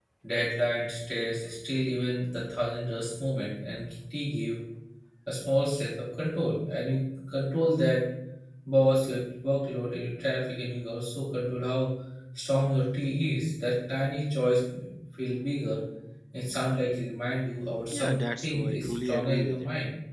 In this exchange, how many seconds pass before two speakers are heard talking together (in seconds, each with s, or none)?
17.9 s